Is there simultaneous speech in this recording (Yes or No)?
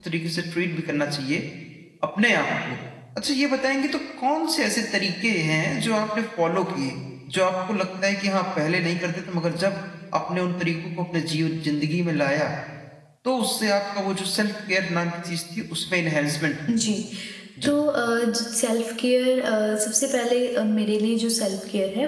No